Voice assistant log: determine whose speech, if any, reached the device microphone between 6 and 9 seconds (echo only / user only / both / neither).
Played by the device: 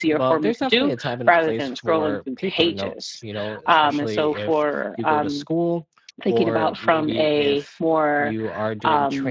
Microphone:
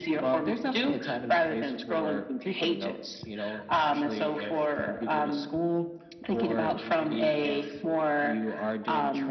echo only